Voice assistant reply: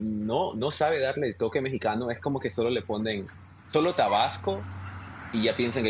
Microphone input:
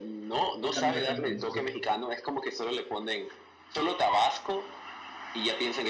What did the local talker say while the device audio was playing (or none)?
Otro Kamjatang delicioso.